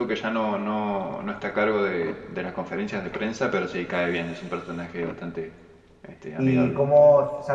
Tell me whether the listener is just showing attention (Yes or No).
No